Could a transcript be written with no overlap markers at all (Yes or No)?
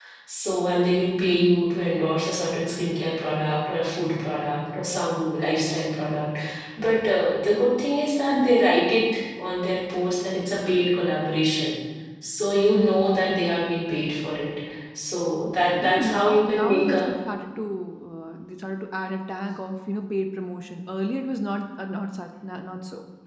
No